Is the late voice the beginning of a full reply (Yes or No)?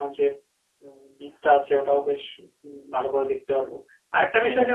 No